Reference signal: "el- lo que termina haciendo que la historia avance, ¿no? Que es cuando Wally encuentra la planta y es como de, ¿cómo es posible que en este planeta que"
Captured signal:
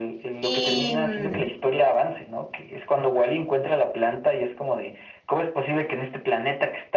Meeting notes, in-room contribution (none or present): present